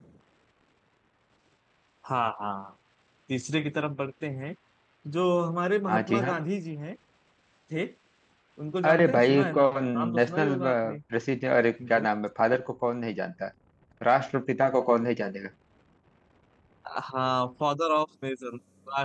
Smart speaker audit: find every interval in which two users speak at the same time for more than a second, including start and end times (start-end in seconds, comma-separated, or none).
8.9-11.0